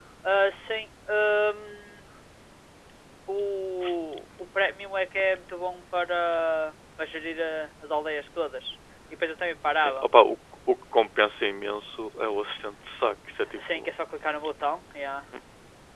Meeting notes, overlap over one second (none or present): none